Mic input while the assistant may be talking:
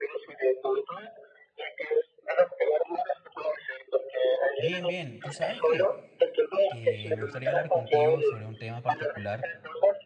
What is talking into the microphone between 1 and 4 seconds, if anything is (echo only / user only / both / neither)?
echo only